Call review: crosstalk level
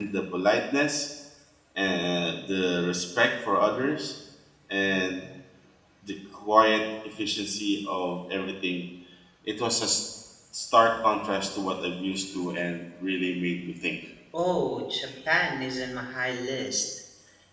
none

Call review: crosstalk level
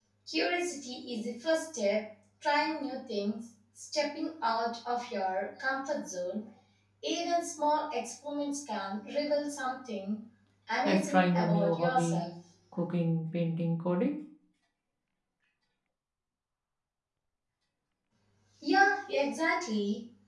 present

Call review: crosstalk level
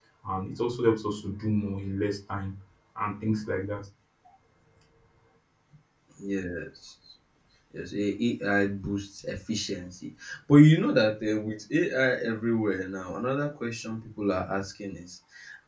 none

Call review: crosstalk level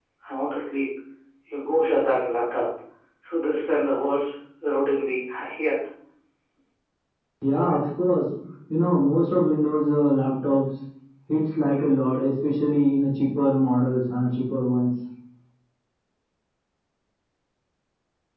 none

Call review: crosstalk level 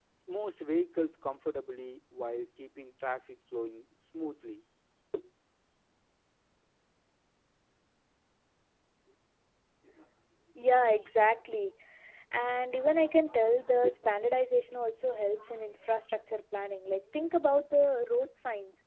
none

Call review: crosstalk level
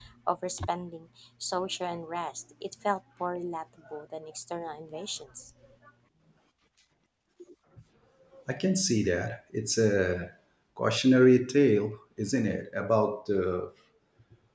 none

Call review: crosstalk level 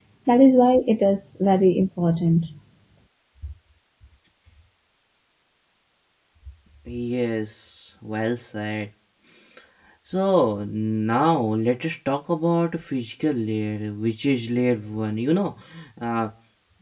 none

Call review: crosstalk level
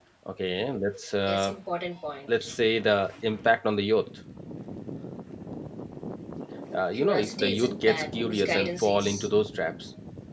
present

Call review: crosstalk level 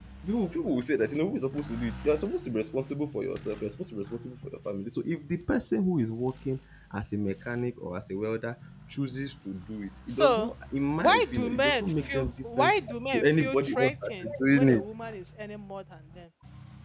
present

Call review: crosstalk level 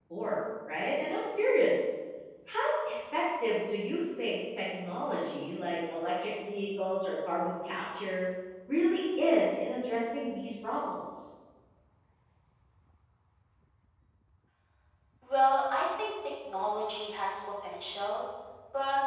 none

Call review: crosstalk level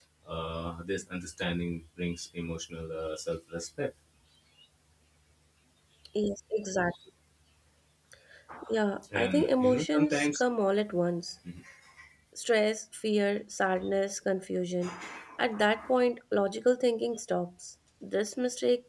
present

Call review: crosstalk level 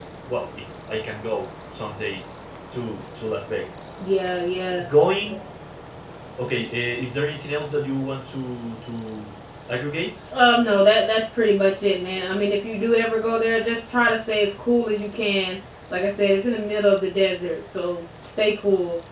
none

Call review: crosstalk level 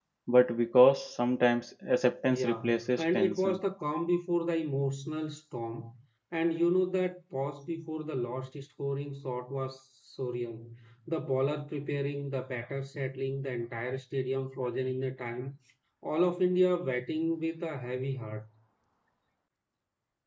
present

